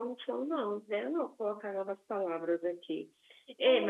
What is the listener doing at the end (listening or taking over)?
listening